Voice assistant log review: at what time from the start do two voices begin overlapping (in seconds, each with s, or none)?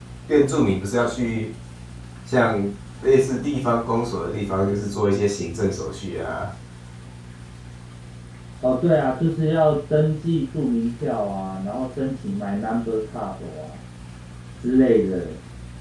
none